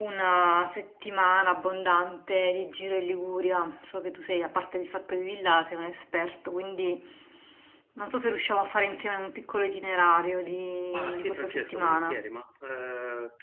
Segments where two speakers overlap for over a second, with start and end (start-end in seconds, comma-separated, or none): 10.9-12.2